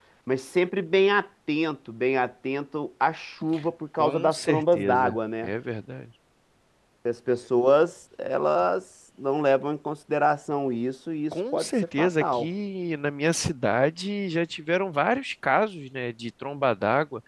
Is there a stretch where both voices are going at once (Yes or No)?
Yes